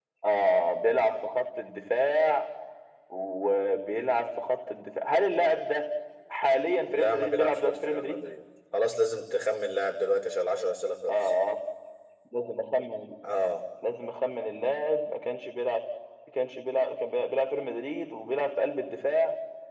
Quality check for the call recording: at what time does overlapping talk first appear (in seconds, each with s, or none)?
6.9 s